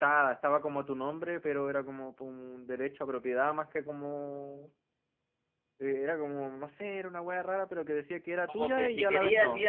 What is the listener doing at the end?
taking over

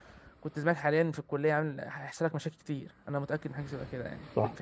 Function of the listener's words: taking over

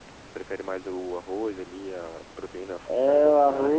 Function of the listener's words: taking over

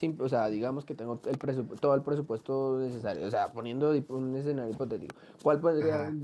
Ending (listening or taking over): listening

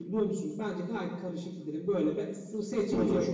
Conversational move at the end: listening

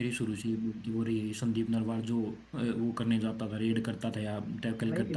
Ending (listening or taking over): taking over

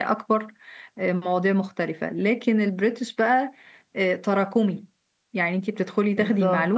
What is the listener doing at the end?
listening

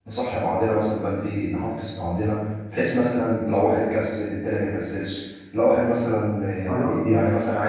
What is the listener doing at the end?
listening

